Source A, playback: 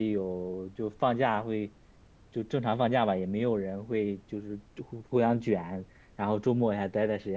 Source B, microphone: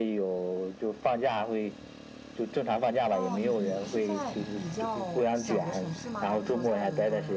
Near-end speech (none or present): present